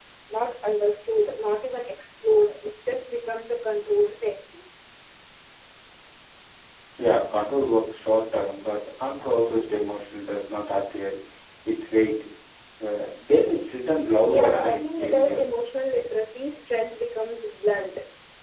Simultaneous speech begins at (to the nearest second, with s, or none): 14 s